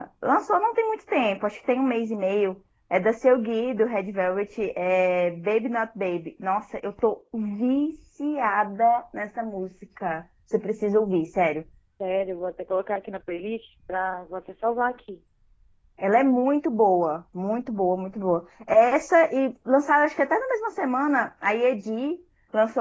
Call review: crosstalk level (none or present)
none